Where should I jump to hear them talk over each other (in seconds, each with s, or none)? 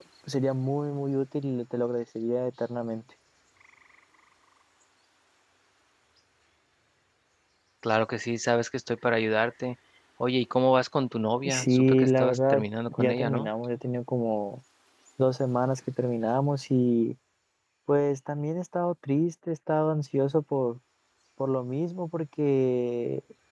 11.4 s